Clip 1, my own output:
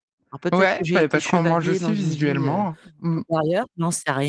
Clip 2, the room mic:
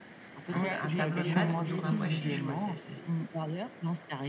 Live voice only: un ta un tableau de maître autour d'un pois chiche quoi c'est c'est c'est

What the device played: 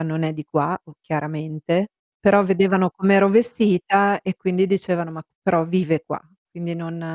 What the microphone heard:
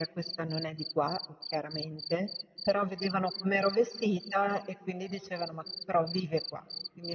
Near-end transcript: none

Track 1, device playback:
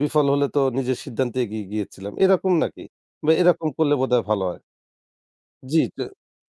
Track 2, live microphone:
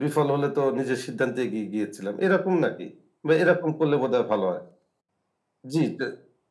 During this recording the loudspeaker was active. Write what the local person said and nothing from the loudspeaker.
none

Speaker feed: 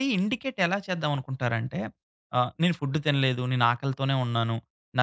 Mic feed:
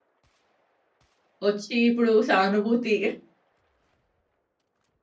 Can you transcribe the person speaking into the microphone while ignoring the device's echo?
వచ్చి ఇప్పుడు సానుభూతి

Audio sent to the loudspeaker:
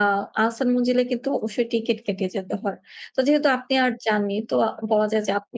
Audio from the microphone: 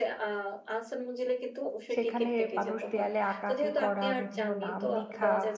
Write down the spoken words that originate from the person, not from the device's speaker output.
সেখানে মানুষ দেয়ালে আঁকাআঁকি করা, বিভিন্ন নাম লিখা,

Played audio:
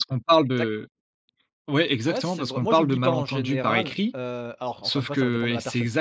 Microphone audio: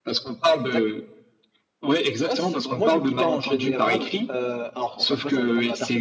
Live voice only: none

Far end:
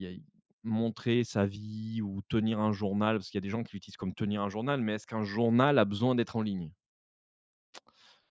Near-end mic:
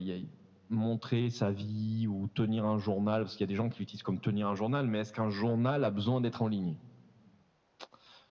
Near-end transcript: none

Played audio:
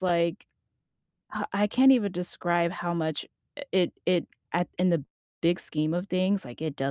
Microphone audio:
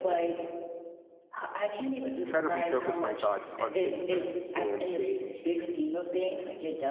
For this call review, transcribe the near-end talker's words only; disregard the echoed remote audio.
try to refocus my thoughts on things that I can change,

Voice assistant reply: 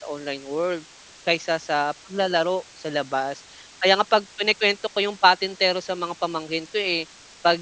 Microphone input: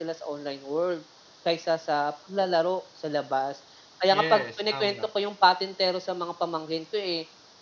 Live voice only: Yes, tama.

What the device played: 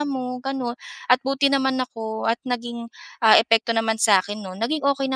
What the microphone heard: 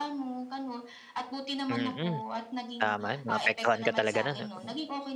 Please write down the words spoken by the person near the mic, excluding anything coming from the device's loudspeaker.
Mm, tama 'yon maapektuhan ka talaga no'n 'no.

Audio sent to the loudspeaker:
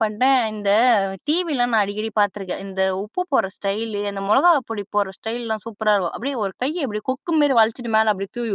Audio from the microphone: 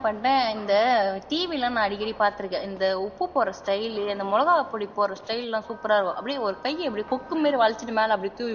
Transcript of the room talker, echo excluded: none

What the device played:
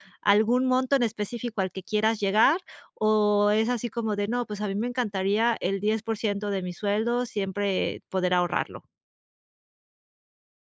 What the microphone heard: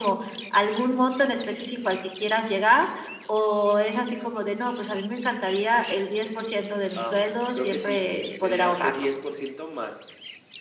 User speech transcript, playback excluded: am, creo que sí, sería este 10% más,

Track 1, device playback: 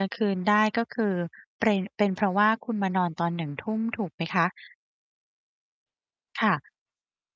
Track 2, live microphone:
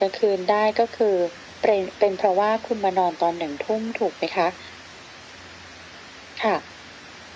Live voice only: none

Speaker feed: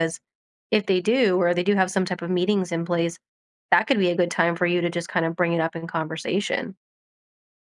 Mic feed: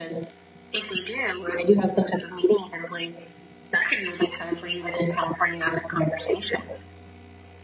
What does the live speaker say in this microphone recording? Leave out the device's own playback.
none

